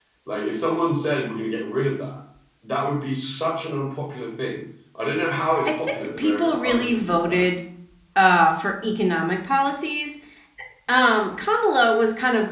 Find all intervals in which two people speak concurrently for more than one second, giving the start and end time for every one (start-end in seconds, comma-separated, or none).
5.6-7.5